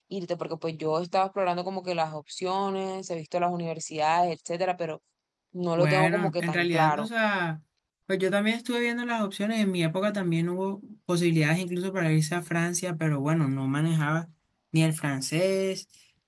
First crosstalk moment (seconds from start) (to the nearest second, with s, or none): 6 s